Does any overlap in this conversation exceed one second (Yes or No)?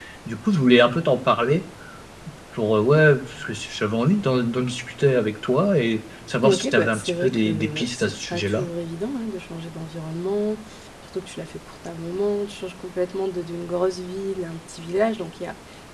Yes